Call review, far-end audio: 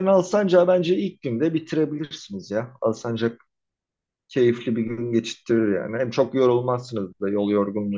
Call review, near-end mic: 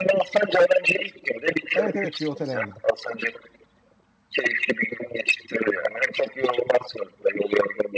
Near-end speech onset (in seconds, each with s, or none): 1.7 s